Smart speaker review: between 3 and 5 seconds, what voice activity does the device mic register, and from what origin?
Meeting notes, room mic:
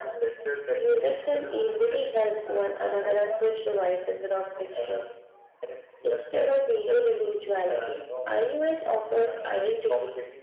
echo only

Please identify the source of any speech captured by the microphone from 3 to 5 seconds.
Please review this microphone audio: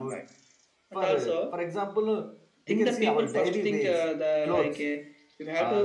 both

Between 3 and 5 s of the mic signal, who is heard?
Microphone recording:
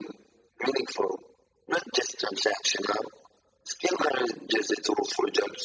echo only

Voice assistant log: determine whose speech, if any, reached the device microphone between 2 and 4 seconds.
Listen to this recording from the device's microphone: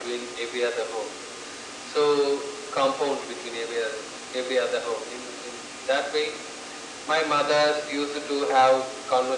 echo only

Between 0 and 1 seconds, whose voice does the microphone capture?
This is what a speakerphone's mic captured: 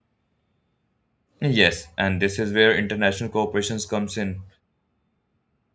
neither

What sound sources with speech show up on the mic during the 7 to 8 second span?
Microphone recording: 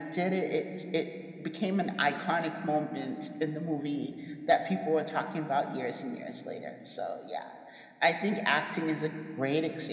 echo only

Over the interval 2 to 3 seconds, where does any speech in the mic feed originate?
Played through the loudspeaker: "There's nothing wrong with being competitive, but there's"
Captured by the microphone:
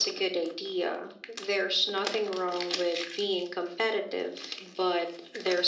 echo only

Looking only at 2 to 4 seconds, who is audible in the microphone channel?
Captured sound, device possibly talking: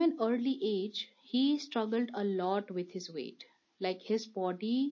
echo only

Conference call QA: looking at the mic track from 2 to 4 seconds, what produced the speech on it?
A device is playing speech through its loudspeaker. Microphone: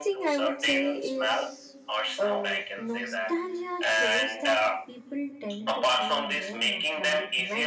both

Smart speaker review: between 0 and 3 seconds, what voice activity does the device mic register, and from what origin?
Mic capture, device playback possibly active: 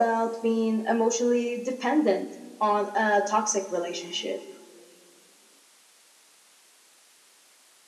echo only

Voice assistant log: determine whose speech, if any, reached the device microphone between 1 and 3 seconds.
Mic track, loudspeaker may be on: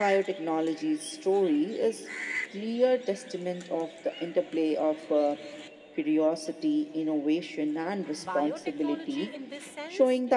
echo only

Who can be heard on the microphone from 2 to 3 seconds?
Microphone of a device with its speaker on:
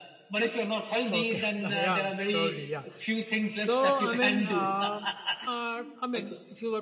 both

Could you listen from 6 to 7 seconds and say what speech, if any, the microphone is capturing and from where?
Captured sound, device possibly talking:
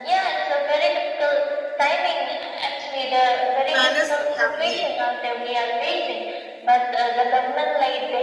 echo only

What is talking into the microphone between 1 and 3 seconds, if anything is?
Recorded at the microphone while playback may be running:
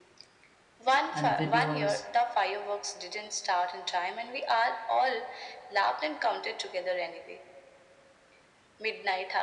both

